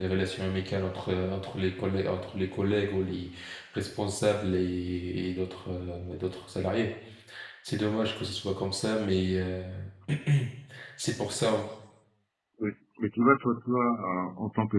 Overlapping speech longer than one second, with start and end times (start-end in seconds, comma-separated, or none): none